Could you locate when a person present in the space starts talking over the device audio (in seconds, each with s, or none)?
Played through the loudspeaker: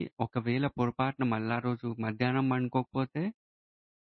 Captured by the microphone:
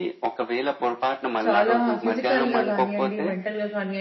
1.4 s